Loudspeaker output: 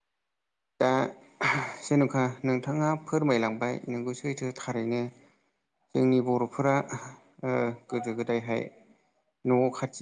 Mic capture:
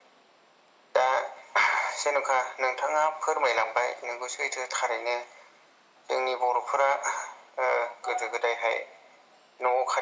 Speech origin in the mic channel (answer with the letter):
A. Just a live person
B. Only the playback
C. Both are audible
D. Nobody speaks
B